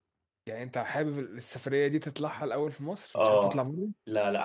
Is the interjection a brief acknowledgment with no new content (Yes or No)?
No